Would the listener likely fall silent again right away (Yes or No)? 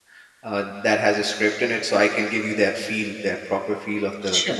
No